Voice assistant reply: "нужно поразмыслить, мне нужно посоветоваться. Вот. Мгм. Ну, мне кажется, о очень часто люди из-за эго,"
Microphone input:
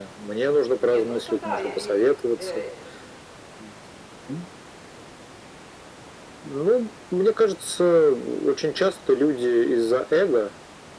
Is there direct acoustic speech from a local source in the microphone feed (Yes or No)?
Yes